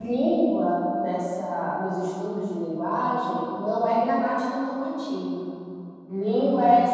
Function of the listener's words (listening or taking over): listening